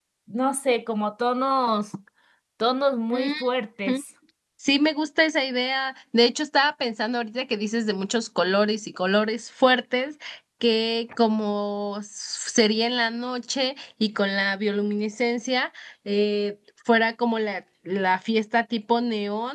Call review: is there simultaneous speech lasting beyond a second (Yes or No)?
No